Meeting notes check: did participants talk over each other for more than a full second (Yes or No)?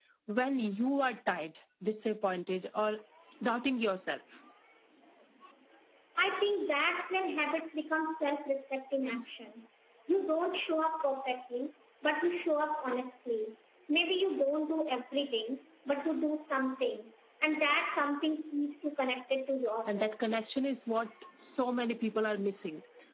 No